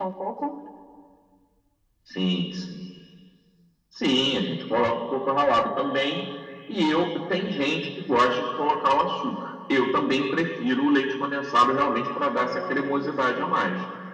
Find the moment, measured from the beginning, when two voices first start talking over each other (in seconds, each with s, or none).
12.3 s